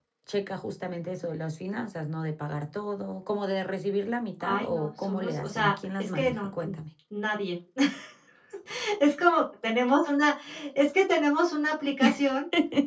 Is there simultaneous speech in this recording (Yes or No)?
Yes